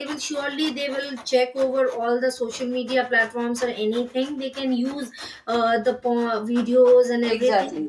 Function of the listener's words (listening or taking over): listening